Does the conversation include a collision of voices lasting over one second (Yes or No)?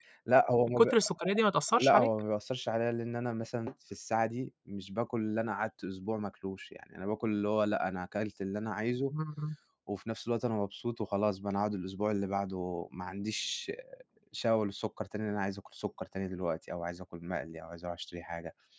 No